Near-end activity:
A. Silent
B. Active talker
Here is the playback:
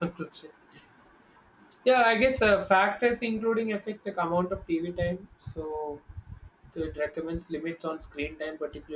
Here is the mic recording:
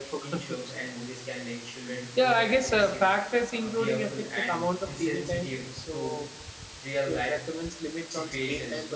B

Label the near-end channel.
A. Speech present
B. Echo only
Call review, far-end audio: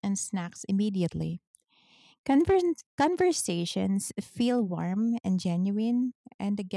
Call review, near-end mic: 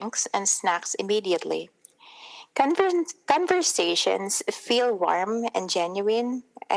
B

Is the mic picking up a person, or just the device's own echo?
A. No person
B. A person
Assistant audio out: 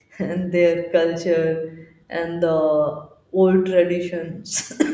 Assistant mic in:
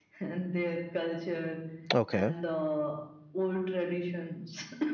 B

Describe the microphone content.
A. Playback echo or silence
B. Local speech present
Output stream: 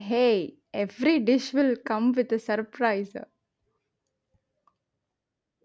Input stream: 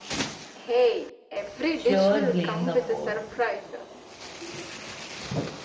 B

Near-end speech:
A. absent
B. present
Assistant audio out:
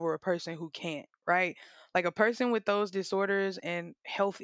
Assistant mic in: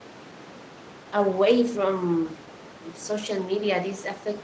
B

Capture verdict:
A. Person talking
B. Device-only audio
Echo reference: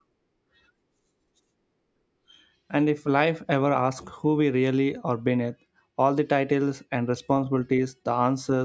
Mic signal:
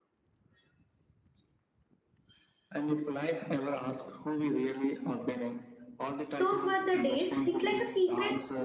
A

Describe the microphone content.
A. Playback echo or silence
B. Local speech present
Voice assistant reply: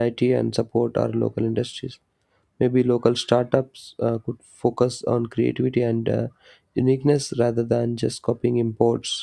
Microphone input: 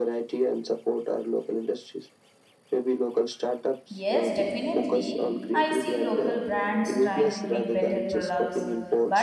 B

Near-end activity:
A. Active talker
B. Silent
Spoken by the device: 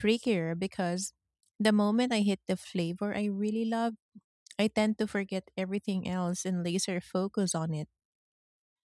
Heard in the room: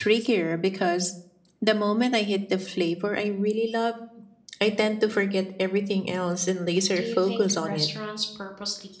A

